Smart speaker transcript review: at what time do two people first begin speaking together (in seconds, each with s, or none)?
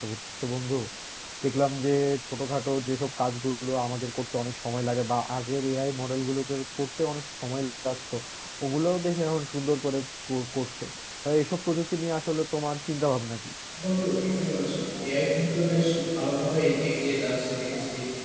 none